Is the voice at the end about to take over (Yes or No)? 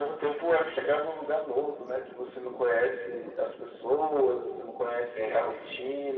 No